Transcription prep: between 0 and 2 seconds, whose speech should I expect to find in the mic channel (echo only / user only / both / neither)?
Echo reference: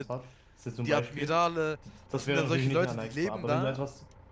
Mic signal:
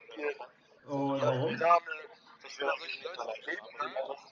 both